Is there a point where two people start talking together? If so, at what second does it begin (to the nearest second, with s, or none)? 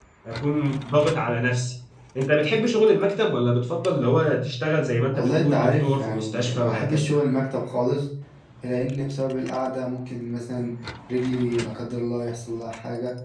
5 s